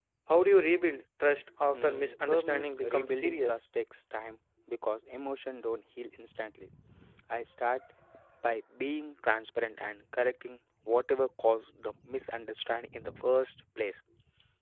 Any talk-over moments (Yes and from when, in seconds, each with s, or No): Yes, from 1.7 s